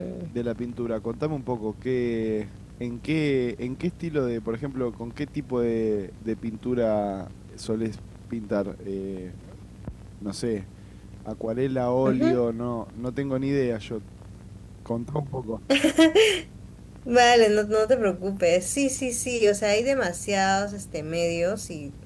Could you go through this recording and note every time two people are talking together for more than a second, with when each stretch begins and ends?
none

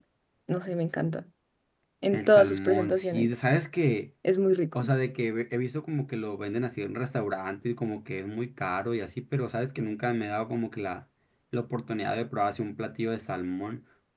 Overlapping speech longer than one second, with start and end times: 2.1-3.3

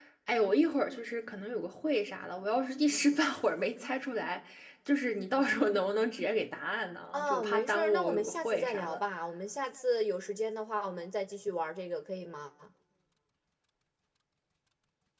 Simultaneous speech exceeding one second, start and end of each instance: 7.1-9.0

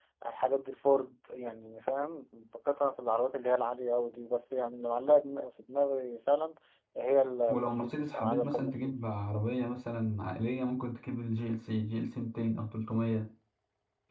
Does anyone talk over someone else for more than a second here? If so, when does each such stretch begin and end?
7.5-9.2

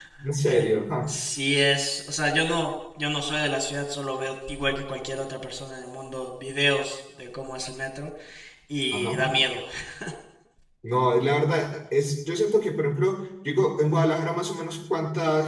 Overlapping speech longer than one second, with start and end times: none

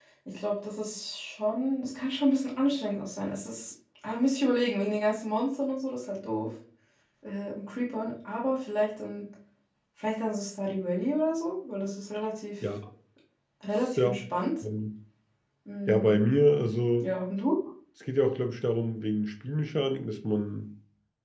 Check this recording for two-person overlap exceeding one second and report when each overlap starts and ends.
none

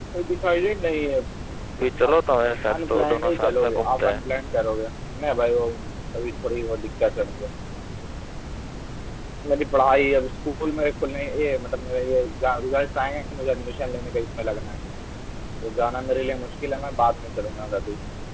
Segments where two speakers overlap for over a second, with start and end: 2.9-4.2

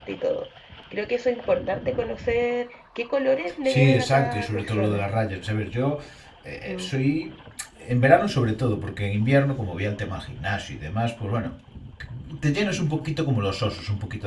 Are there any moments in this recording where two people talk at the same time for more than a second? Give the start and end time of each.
3.7-5.0

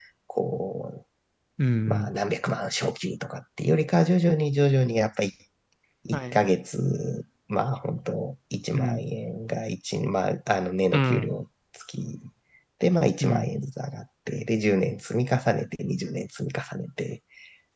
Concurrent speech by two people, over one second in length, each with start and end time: none

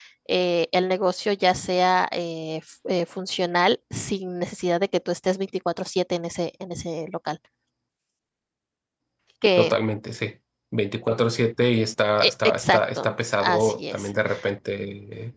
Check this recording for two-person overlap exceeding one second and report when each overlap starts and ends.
12.2-14.1

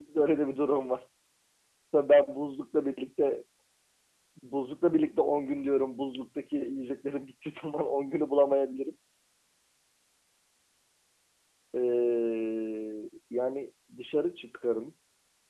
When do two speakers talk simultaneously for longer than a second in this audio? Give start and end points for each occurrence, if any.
none

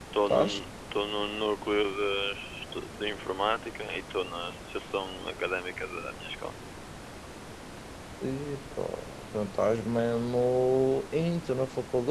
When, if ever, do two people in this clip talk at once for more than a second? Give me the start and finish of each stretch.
none

